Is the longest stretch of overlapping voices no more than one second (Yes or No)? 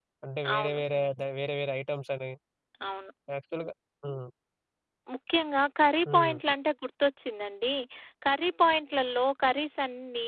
Yes